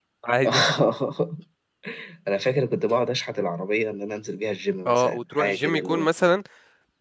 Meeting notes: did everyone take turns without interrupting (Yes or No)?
No